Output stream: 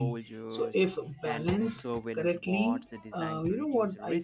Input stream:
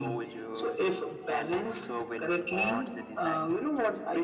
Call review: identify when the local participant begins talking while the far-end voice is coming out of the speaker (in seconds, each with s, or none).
none